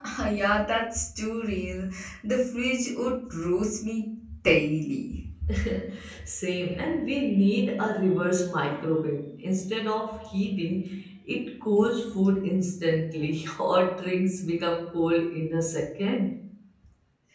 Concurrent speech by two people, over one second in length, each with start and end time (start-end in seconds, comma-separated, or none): none